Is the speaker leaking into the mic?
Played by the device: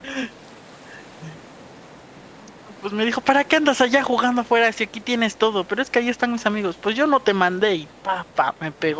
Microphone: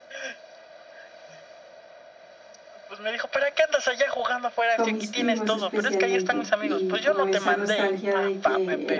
Yes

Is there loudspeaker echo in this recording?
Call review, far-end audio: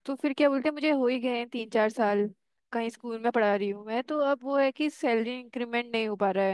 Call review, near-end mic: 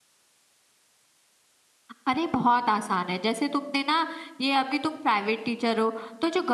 No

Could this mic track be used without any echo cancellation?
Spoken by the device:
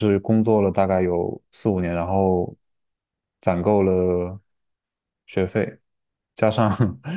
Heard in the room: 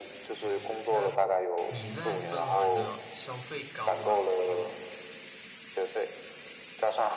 No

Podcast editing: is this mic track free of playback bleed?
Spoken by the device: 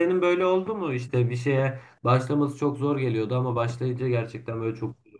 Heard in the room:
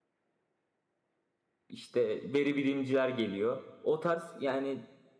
Yes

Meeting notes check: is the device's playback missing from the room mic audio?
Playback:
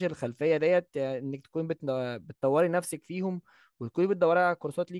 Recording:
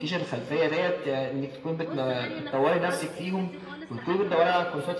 No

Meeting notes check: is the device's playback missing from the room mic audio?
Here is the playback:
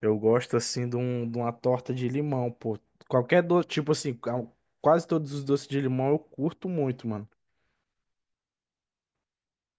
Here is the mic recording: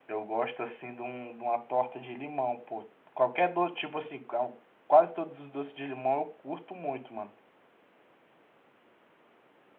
No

